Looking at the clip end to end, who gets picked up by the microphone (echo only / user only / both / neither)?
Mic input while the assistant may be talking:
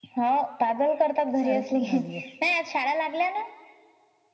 both